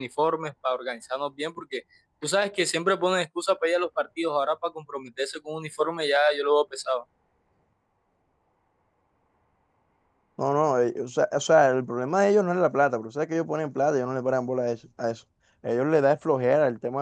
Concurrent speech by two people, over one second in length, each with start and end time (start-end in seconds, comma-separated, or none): none